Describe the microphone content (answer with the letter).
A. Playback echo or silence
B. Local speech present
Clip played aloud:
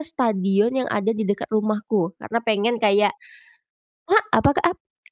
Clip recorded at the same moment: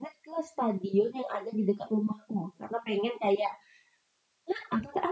A